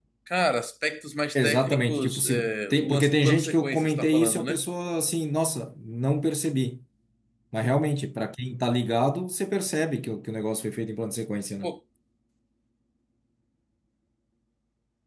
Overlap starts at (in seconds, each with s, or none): 1.4 s